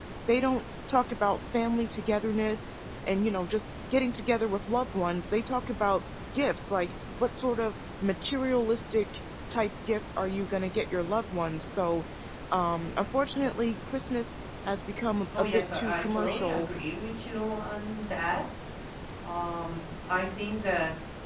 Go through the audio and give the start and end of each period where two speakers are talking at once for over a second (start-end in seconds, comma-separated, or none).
15.4-16.7